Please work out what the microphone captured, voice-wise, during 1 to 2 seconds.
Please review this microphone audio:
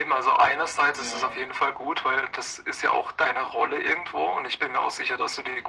both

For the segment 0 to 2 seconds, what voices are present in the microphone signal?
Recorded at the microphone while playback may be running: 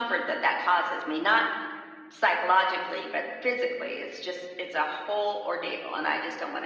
echo only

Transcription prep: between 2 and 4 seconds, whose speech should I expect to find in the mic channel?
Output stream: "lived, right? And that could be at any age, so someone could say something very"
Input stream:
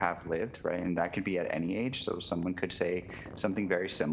echo only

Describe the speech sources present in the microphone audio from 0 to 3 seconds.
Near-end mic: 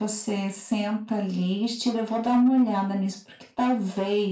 echo only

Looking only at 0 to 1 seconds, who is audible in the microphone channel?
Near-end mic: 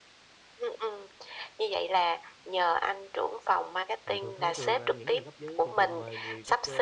echo only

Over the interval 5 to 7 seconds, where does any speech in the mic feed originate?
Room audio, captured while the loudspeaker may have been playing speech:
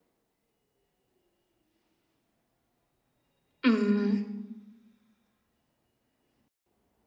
neither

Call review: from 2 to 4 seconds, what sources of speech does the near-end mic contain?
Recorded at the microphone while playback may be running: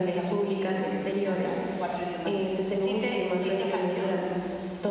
echo only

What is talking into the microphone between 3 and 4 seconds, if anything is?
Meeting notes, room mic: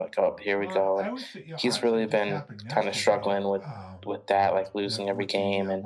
both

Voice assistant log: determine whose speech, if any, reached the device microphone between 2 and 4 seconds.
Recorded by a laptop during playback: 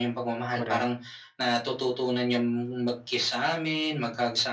echo only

